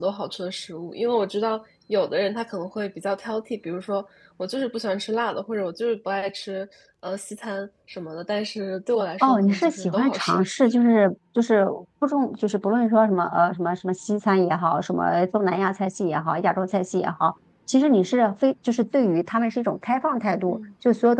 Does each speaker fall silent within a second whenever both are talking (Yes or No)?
No